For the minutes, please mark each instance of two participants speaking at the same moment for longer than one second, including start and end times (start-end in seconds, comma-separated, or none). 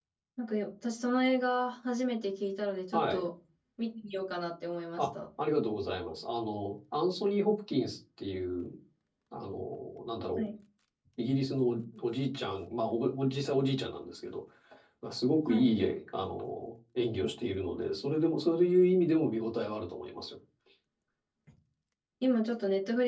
none